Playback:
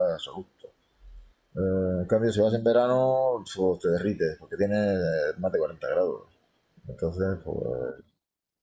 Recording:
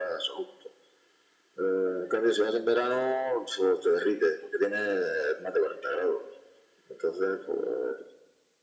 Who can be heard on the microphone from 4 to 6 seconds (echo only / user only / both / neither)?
echo only